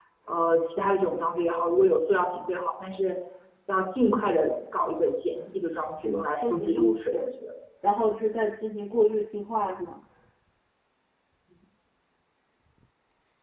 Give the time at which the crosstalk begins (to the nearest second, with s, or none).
6 s